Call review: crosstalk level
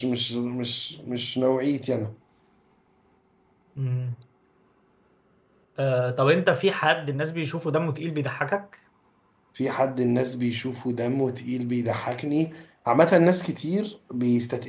none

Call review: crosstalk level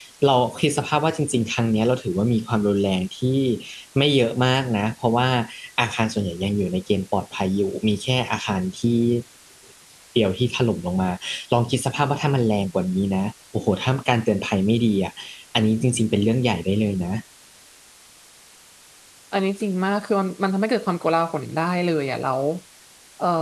none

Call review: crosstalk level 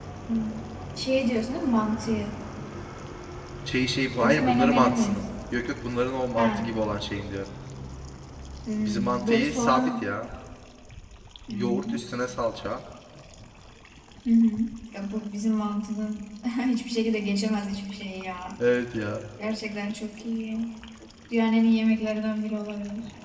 present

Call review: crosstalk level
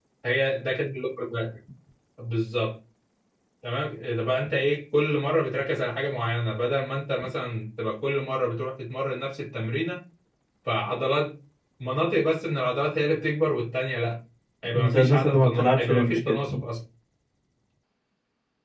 present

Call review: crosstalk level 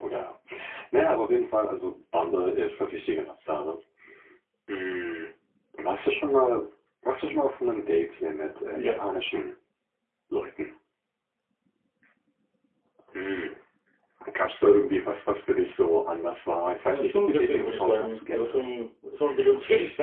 present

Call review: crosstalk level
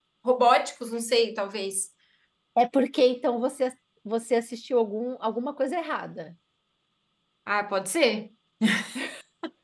none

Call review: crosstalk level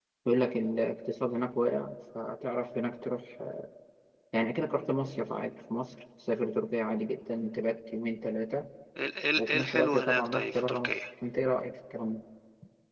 present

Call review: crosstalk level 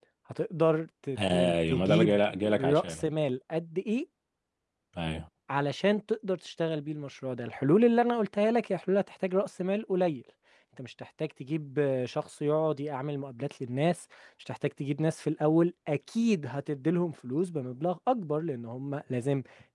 present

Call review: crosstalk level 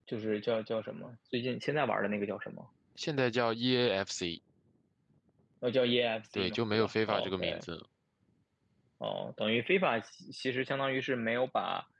present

